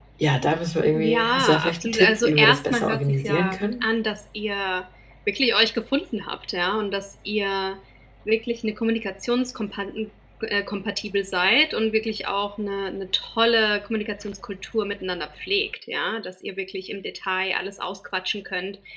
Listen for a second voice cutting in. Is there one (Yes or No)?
Yes